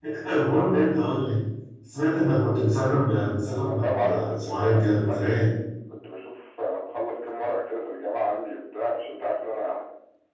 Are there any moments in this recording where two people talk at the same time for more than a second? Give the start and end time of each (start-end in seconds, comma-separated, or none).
3.7-5.4